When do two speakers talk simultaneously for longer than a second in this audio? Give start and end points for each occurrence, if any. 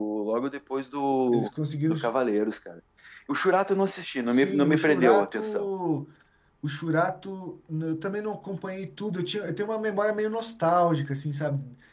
4.3-5.7

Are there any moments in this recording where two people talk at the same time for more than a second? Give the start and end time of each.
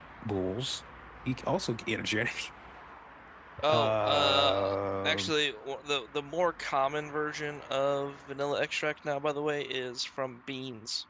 3.7-5.2

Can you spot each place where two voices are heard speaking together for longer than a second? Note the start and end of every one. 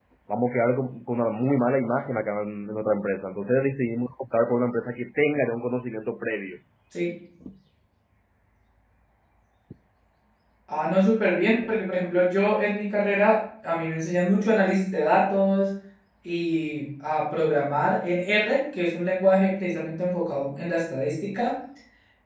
none

